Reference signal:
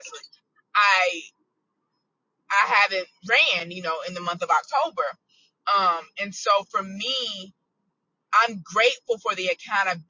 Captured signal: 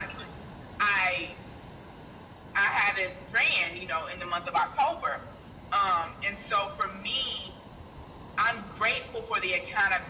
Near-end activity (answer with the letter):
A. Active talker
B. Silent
B